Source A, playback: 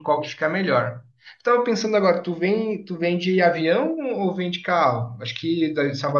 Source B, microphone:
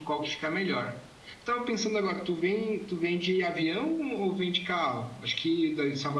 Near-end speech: none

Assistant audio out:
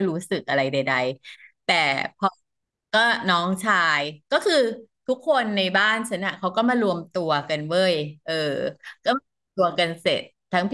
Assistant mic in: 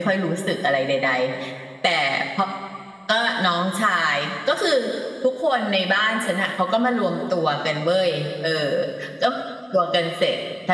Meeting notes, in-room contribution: none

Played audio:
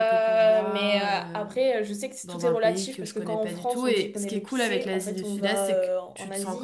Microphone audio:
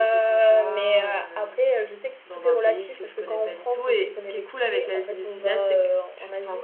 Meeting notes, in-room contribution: none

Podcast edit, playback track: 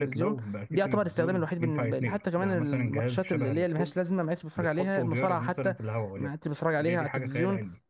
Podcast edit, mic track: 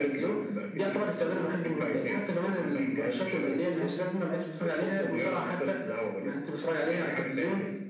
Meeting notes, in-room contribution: none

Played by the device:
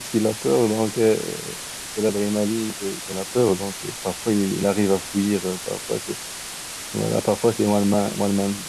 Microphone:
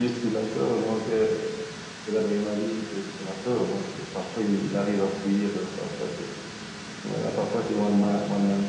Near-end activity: none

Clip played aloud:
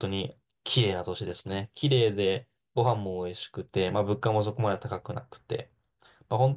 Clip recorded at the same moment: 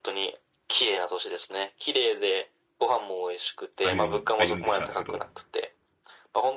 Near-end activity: present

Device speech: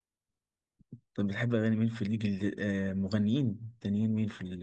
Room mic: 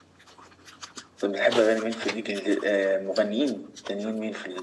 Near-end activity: none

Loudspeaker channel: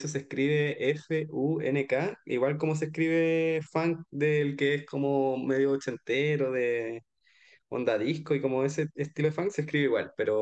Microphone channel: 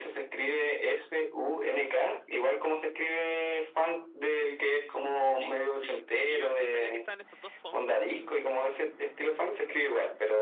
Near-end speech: present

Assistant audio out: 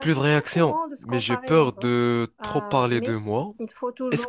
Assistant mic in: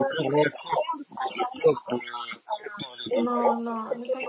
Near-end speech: present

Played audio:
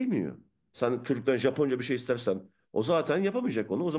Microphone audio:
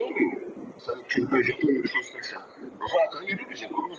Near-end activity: none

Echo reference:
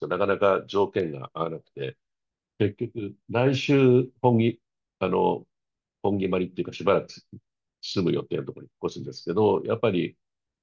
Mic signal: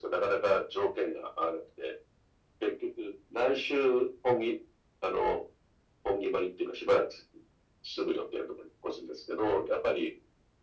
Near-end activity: none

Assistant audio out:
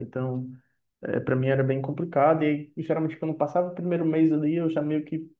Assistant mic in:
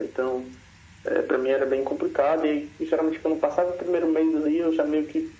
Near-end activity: none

